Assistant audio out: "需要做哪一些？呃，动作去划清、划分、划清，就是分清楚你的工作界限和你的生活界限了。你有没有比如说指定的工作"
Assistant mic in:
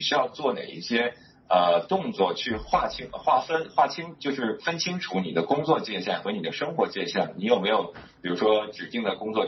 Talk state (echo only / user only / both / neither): echo only